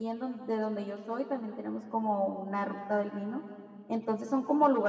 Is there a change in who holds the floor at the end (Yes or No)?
No